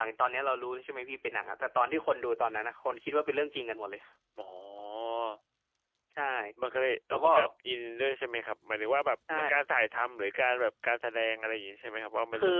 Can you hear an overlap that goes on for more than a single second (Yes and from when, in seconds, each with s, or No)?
No